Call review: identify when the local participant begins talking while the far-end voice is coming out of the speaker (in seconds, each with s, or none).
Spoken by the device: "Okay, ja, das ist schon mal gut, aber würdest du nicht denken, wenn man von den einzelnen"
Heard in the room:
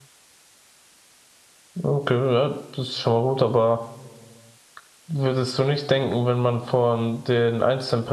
none